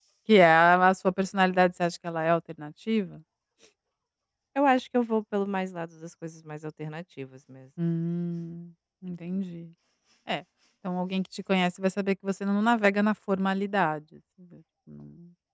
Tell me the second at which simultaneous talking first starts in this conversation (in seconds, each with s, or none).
none